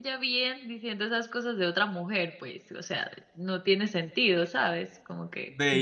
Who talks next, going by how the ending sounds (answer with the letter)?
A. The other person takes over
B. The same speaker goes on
A